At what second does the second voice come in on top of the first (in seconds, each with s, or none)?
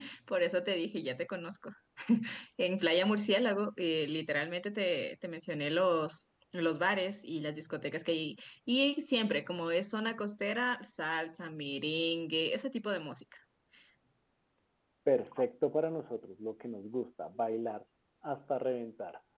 none